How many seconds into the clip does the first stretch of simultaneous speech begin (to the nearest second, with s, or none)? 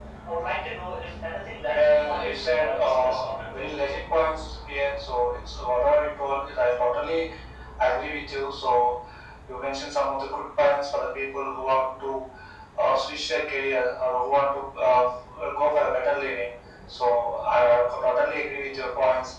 2 s